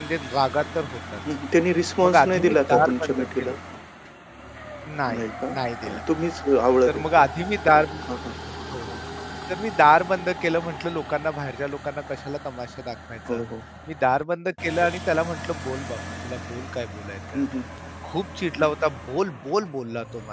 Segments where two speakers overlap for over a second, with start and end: 2.0-3.5

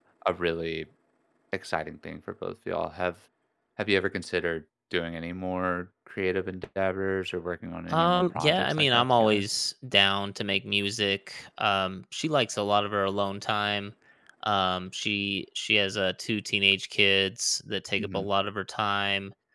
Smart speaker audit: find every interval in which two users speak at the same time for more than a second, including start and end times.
7.9-9.4

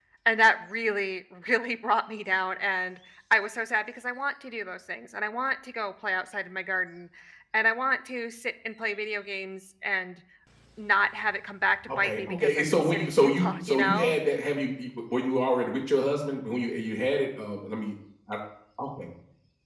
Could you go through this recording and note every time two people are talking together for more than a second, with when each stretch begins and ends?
11.9-14.1

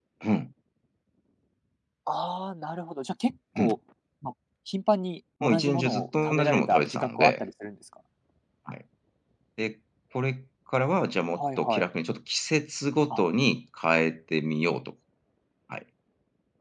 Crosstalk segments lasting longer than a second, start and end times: 5.4-7.4

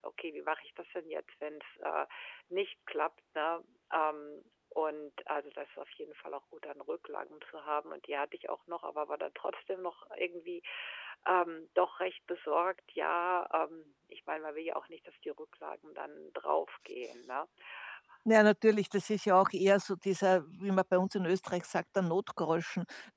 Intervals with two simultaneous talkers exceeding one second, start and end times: none

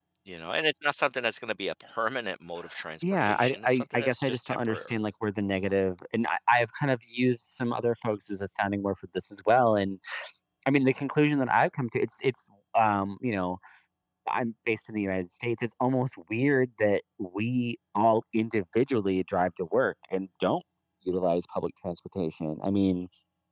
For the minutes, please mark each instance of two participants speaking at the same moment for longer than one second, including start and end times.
3.0-4.9

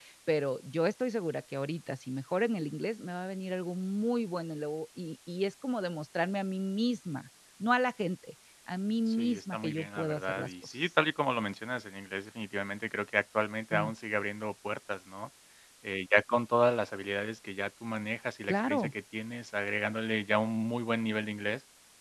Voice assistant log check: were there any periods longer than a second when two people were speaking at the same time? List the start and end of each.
9.1-10.7

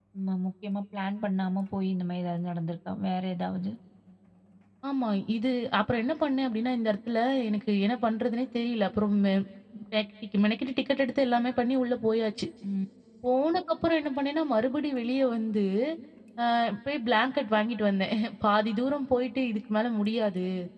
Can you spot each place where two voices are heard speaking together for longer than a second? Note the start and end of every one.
none

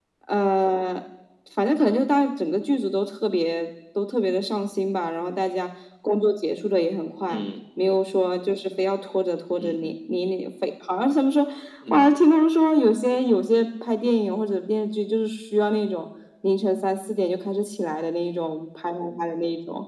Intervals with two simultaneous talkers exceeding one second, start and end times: none

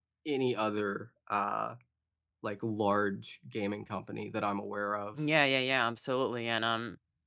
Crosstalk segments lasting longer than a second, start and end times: none

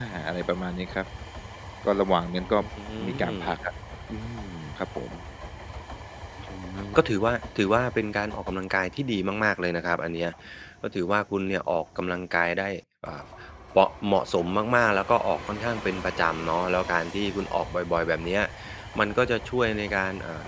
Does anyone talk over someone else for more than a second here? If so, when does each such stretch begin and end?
none

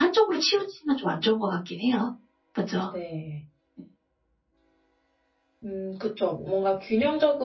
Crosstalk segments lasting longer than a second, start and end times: none

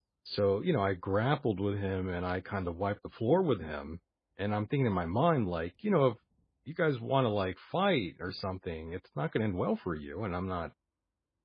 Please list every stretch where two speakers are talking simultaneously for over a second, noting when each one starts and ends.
none

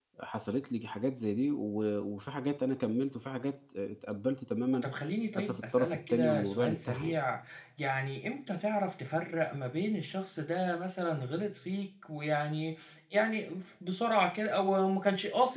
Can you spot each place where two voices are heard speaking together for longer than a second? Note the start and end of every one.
5.4-7.2

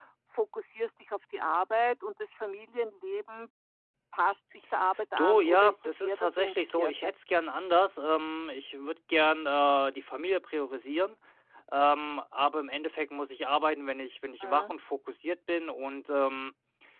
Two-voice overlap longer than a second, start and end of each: 5.2-7.1

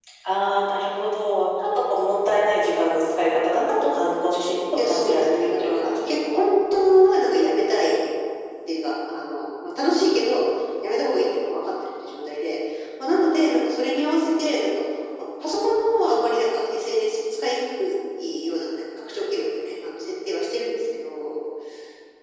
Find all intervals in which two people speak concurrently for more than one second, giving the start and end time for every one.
4.8-6.4

